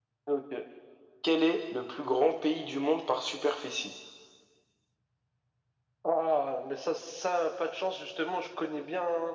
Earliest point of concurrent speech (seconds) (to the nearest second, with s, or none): none